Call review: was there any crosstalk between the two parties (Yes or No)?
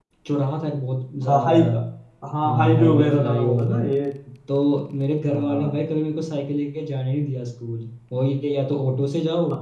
Yes